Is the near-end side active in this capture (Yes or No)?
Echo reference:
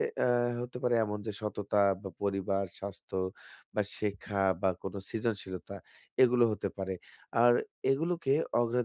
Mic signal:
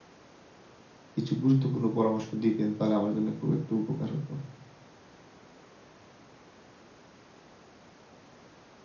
Yes